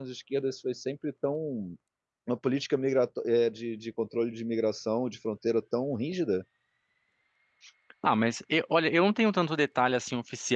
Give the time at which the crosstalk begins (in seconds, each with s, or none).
none